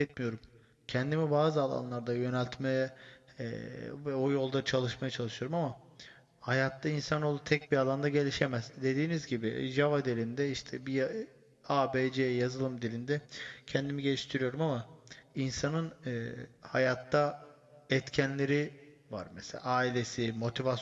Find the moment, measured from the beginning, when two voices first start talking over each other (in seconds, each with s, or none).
none